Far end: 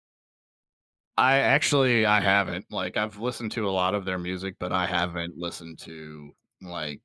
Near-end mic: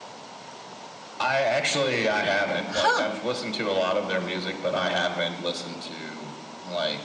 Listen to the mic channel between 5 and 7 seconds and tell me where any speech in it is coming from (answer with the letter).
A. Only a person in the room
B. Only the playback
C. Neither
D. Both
B